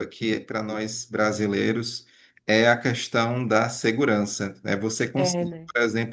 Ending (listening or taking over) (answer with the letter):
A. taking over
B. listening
B